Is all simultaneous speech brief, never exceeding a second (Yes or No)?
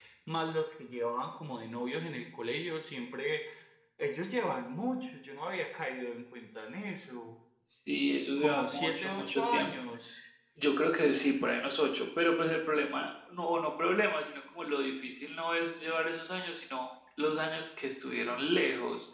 No